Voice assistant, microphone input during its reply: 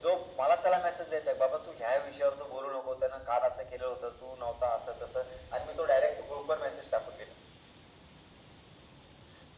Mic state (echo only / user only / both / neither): echo only